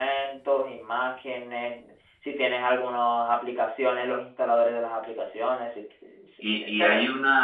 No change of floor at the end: No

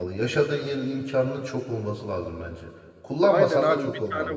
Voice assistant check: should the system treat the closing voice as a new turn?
Yes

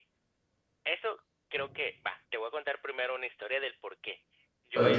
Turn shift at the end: No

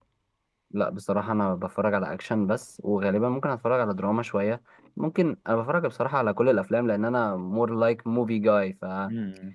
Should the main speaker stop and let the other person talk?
No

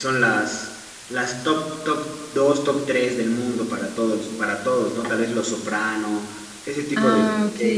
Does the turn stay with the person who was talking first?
Yes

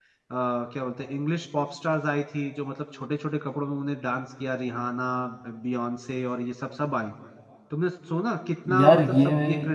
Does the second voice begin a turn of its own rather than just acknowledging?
No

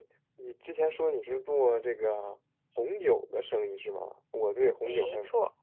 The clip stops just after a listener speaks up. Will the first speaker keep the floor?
Yes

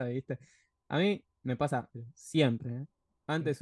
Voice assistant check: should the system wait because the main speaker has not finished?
Yes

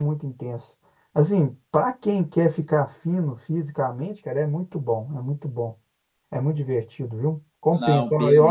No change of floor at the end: Yes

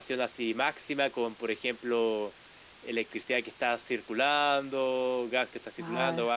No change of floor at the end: Yes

